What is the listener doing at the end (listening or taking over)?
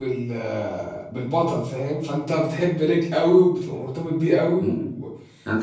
taking over